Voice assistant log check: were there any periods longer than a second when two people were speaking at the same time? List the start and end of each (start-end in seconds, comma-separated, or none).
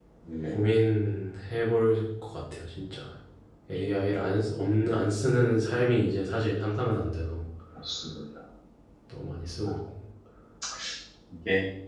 none